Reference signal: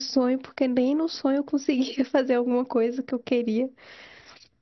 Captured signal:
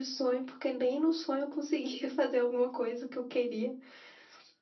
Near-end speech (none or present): none